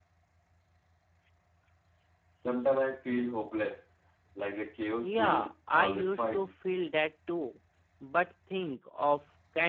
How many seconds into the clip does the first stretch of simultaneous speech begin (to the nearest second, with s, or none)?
5 s